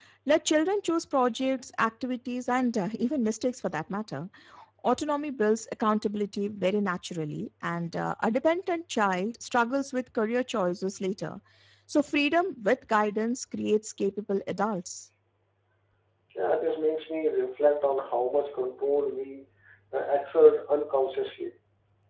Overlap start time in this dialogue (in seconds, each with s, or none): none